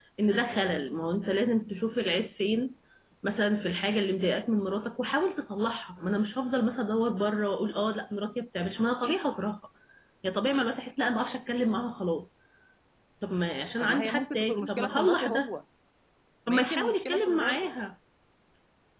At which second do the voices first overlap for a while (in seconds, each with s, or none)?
13.8 s